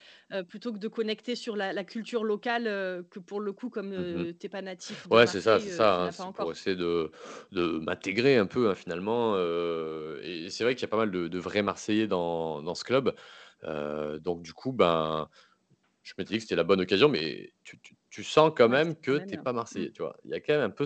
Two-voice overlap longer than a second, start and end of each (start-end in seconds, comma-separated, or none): 5.1-6.5, 18.6-19.9